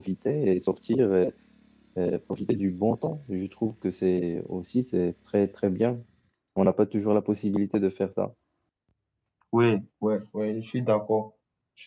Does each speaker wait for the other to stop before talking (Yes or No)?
Yes